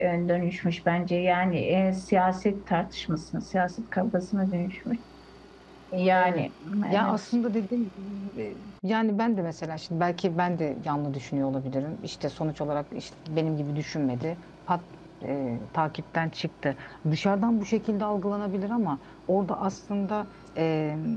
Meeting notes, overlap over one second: none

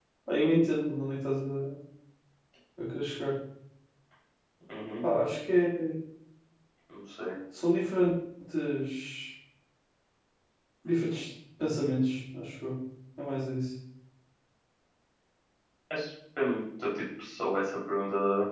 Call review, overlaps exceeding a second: none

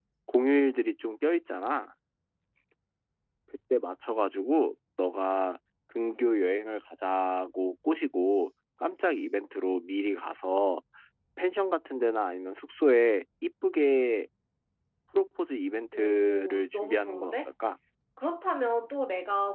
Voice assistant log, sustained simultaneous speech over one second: present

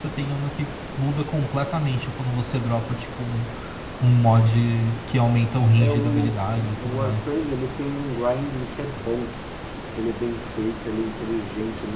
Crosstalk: present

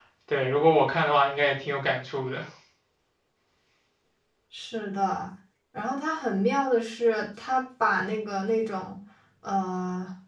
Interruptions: none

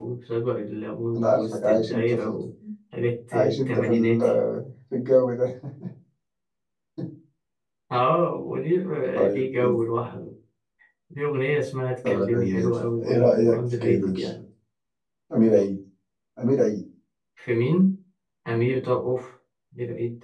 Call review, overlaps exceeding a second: present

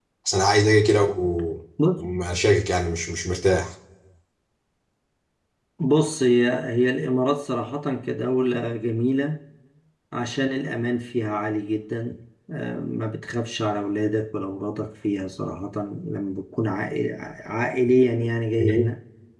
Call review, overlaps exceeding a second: none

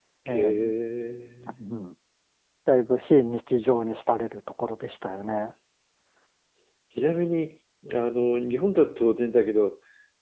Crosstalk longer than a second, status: none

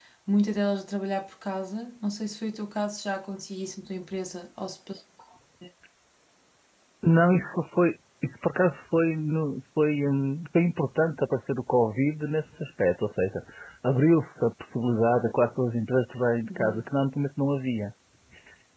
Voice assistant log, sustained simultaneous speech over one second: none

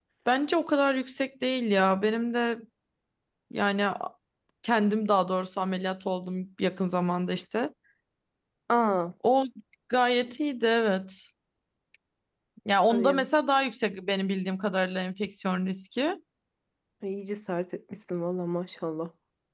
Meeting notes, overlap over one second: none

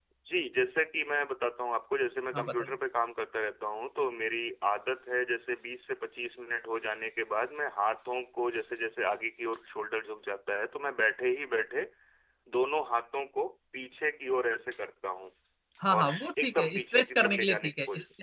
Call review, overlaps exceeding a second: present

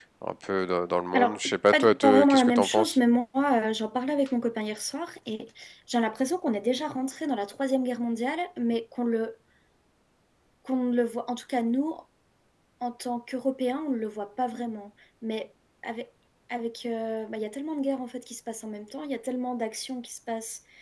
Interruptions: present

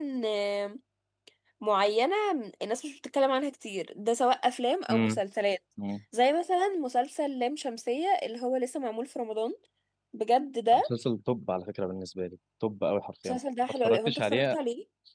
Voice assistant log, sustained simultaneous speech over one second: present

